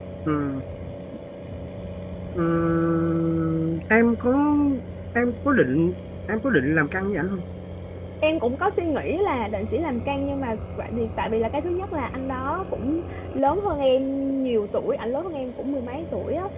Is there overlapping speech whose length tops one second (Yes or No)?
No